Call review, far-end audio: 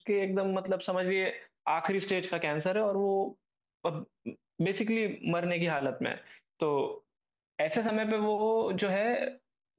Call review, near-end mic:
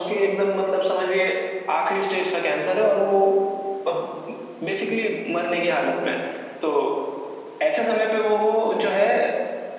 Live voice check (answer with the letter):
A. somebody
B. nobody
B